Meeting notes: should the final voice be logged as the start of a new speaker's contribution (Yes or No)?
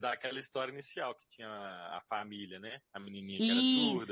Yes